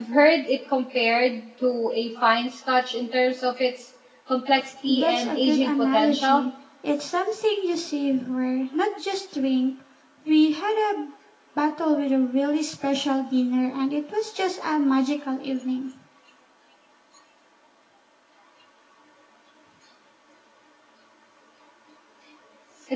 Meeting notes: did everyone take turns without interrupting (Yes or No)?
No